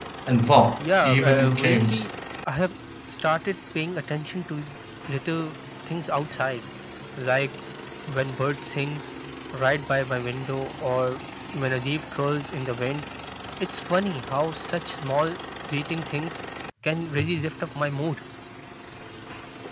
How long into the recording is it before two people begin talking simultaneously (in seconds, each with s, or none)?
0.8 s